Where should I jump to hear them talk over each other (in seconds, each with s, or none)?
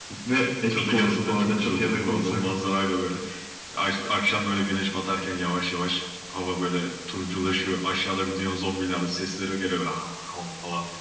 0.7 s